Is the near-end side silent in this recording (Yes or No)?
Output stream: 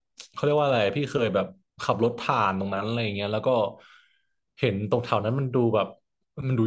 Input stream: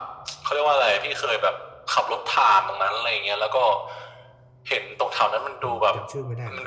No